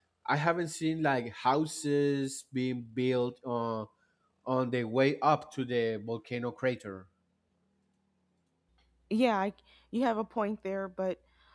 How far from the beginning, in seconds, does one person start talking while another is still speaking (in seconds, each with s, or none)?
none